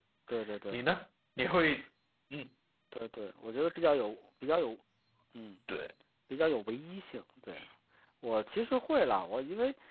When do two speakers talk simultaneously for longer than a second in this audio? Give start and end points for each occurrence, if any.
none

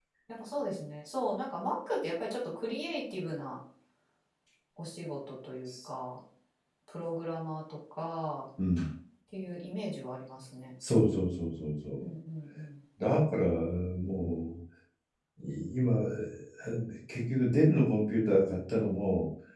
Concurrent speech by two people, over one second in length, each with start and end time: none

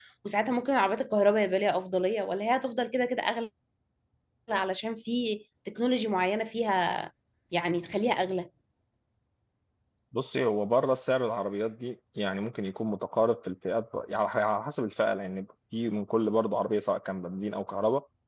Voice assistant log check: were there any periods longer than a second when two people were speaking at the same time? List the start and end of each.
none

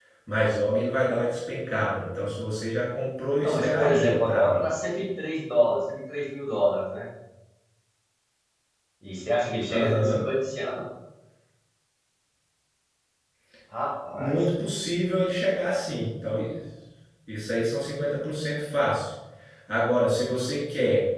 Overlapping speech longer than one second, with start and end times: 3.4-4.7

